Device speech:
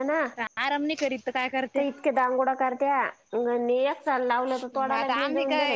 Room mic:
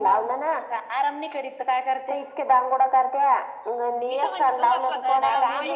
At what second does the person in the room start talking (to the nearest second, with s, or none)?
4 s